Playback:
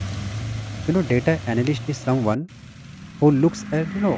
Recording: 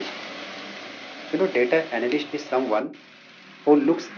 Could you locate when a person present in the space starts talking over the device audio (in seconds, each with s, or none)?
none